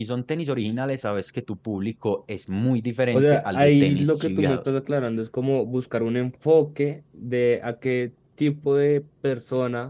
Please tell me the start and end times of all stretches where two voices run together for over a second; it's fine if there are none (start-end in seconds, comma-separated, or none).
3.1-4.6